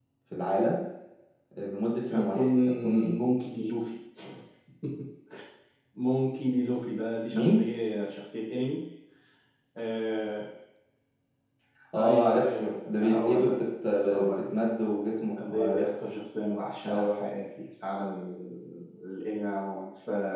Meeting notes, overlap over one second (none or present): present